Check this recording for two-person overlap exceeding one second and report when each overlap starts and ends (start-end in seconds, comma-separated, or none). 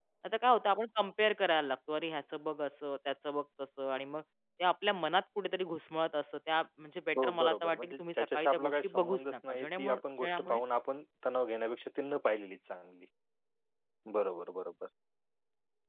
7.2-10.6